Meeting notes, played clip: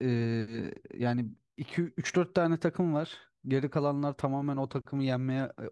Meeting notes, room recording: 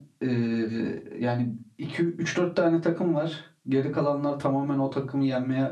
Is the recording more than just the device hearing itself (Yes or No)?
No